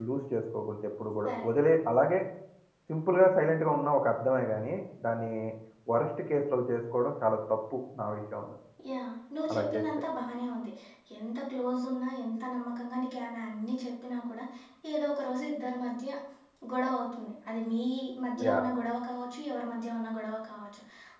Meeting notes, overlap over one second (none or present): none